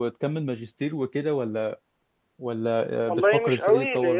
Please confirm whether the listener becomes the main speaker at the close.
Yes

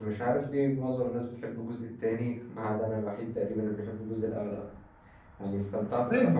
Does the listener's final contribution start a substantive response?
Yes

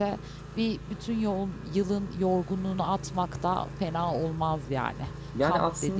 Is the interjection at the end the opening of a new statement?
Yes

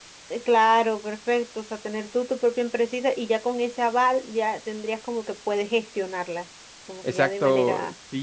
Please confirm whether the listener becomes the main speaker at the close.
Yes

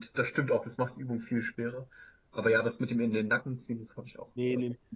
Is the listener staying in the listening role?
No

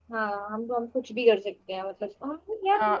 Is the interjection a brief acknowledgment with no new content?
No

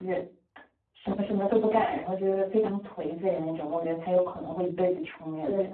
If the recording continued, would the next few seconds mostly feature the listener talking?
No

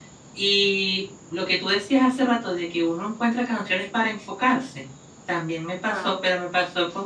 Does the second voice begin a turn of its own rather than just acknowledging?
No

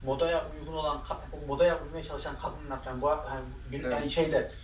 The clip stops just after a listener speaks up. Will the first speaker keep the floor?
Yes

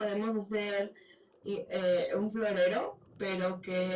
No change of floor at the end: Yes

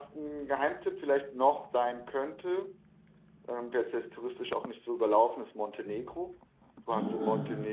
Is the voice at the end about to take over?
No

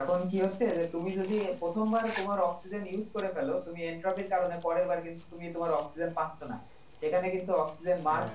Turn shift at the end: No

